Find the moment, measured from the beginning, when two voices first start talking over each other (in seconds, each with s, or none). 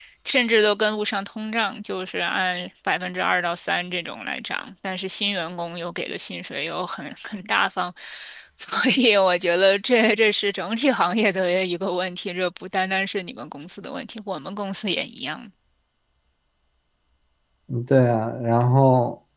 none